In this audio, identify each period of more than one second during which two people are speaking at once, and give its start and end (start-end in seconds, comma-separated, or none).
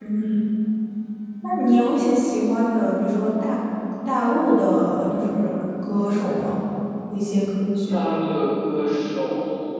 none